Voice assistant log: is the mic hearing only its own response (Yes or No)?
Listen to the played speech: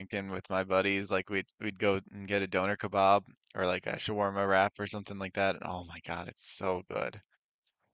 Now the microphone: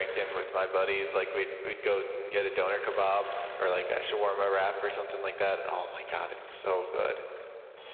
Yes